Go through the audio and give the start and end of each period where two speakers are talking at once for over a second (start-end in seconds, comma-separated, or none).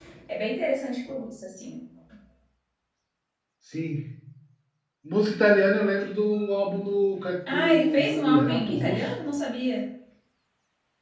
7.5-9.1